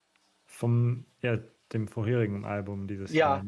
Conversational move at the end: taking over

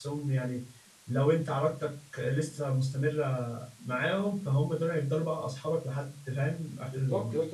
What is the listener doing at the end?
taking over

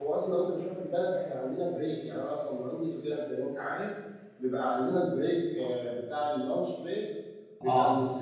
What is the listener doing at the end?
listening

